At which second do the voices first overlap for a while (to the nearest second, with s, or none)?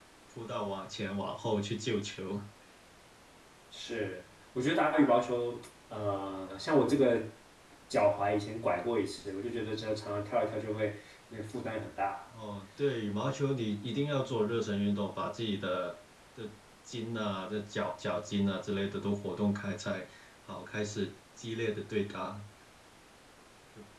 none